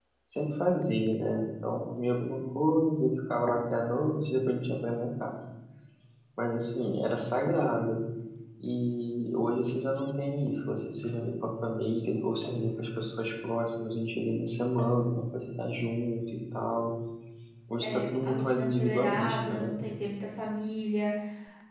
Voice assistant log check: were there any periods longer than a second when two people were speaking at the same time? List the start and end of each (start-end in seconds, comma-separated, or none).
17.8-19.6